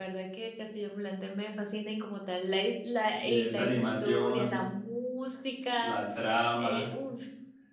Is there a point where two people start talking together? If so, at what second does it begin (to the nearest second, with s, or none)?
3 s